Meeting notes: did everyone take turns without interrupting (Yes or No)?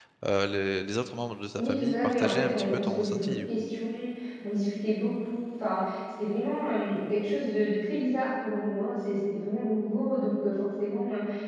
No